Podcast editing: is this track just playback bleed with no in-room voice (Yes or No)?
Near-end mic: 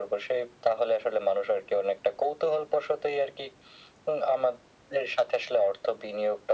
Yes